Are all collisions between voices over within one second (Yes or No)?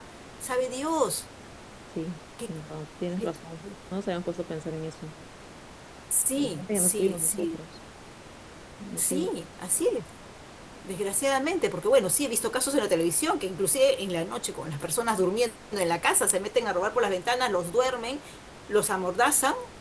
No